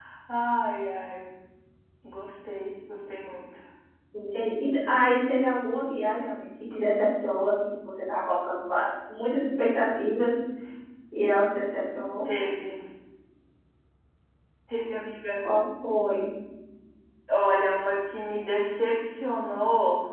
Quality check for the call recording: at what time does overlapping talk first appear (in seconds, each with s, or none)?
none